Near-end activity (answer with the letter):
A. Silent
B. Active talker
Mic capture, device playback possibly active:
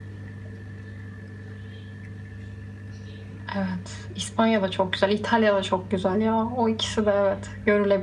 A